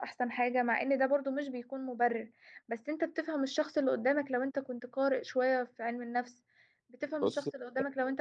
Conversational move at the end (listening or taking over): listening